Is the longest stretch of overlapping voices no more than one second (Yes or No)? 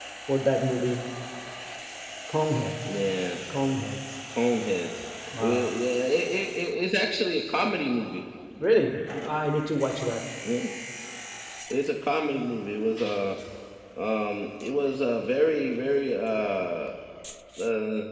Yes